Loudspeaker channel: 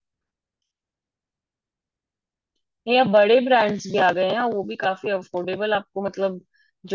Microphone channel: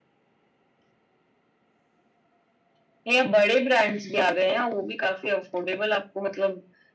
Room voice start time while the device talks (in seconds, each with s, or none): none